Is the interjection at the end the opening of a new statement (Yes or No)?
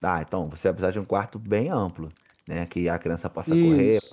No